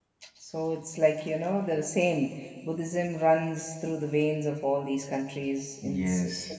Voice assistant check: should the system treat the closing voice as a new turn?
Yes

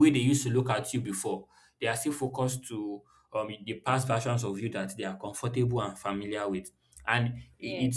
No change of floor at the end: Yes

